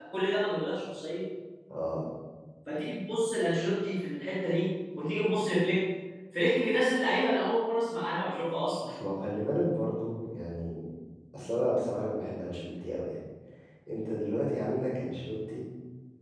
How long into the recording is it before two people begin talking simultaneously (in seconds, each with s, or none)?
none